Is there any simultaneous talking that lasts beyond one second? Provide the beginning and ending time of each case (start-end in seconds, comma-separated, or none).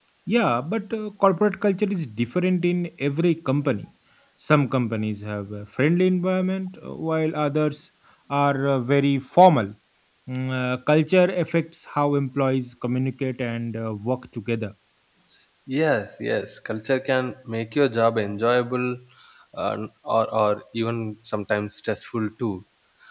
none